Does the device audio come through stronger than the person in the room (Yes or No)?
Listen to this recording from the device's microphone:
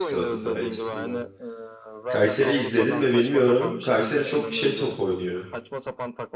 No